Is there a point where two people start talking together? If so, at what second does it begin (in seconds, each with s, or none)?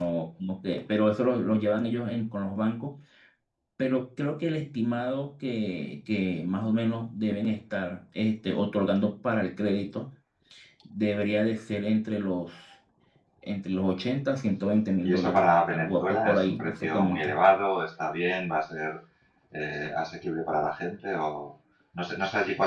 15.0 s